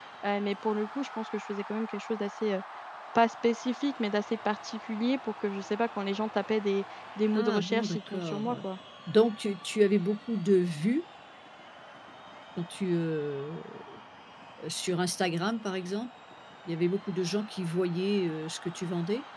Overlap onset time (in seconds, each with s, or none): 7.3 s